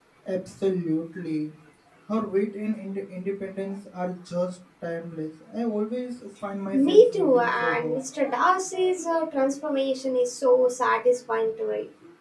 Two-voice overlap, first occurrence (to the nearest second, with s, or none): 7 s